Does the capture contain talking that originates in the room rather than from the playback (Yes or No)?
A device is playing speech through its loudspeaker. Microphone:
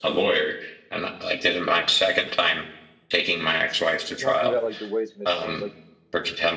Yes